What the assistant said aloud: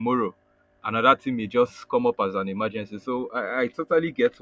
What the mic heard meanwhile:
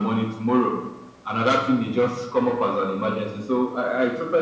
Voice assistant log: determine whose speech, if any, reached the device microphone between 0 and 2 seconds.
echo only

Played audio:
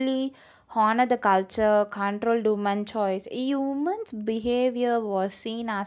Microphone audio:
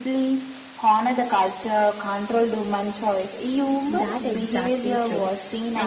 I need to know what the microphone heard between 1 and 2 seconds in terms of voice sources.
echo only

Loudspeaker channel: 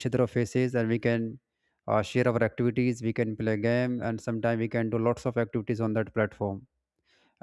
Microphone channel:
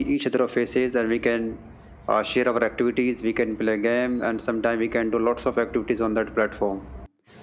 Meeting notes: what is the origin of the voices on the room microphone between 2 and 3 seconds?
echo only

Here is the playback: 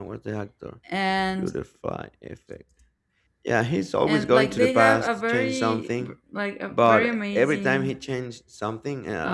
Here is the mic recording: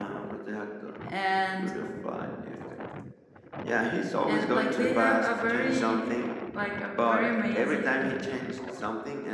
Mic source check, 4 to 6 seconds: echo only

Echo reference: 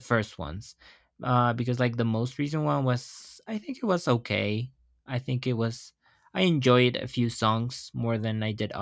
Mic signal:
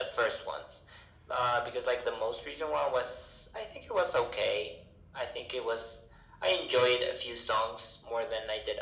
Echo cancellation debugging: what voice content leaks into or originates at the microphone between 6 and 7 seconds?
echo only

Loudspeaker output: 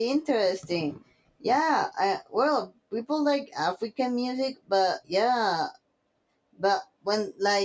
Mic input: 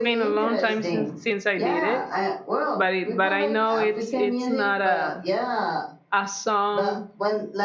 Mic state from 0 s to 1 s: both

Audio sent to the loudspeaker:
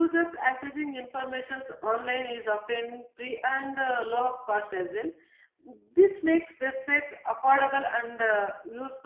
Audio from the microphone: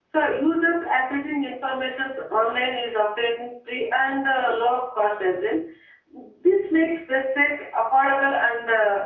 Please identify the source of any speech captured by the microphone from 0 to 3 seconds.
echo only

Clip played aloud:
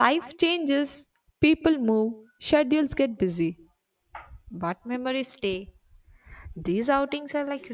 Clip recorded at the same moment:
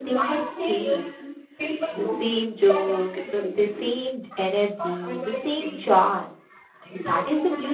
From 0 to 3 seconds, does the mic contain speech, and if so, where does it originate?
both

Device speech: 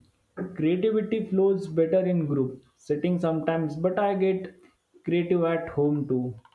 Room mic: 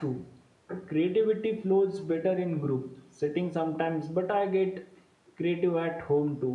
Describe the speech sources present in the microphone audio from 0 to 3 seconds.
echo only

